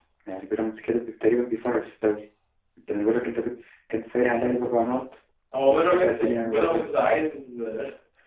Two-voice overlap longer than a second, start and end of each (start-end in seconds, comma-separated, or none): 5.7-6.9